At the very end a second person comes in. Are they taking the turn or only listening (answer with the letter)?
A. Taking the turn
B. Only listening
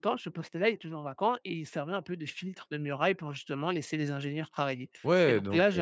A